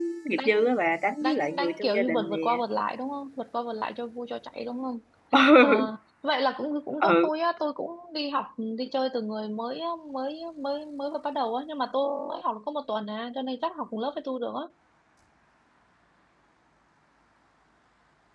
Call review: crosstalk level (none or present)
present